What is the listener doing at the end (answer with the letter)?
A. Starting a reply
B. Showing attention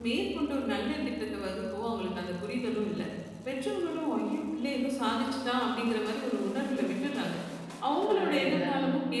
B